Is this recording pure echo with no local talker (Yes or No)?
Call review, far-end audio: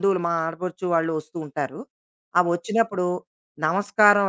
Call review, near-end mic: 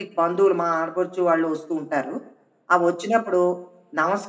Yes